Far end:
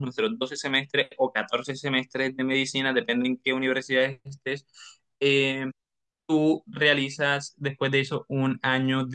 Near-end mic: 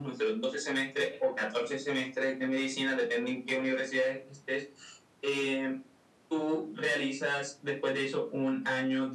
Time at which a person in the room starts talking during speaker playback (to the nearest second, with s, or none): none